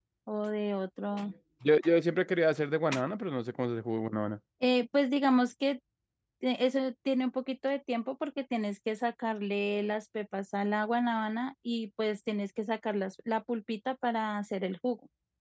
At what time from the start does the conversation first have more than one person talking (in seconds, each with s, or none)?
none